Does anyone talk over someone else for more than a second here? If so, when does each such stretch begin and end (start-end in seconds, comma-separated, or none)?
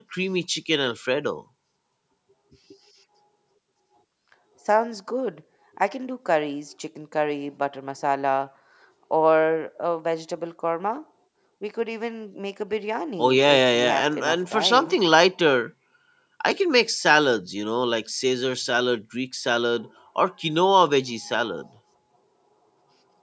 13.2-14.9